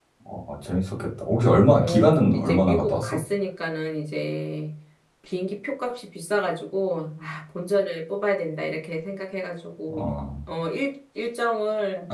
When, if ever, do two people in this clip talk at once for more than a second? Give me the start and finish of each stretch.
1.8-3.2

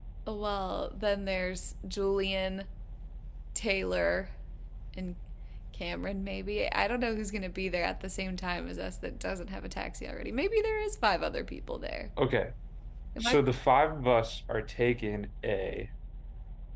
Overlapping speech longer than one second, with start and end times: none

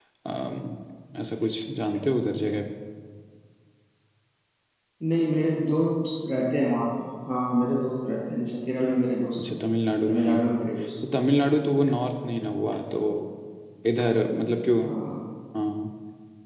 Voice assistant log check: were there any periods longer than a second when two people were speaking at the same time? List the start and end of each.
none

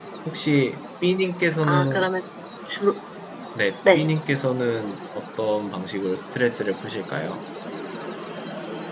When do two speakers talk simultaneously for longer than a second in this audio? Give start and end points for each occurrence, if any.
none

